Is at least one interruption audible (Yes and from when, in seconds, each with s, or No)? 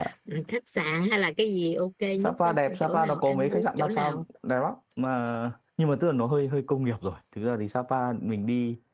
Yes, from 2.2 s